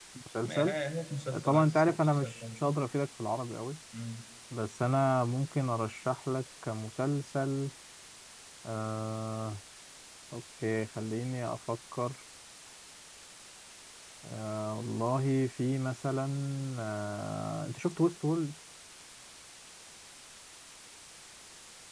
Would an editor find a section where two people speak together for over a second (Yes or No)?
Yes